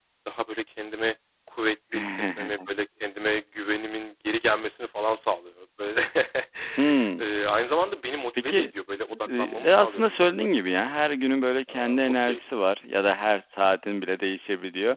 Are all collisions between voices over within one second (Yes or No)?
No